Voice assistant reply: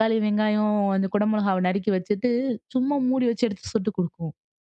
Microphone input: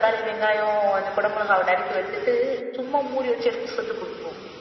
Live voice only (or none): none